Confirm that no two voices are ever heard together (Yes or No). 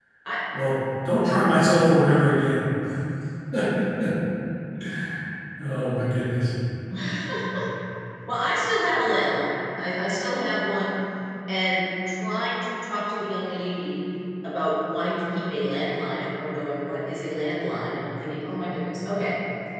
Yes